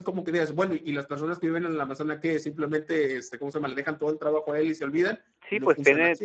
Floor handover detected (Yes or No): Yes